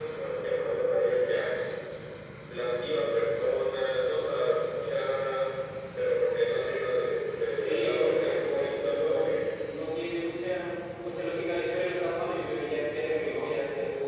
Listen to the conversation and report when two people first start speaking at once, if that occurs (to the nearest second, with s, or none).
8 s